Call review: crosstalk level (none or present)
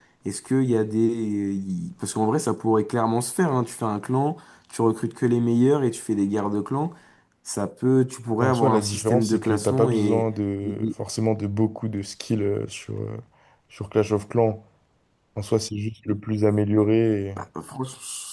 present